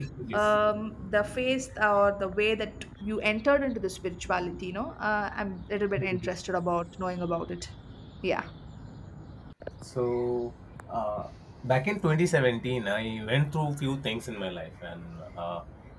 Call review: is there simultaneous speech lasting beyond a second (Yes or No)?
No